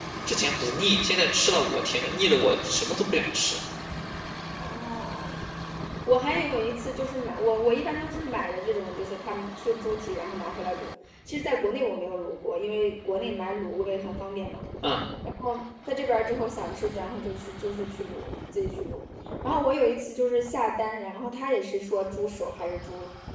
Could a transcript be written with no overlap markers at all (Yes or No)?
Yes